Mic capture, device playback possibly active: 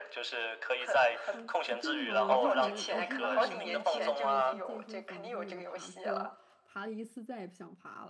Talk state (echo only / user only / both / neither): both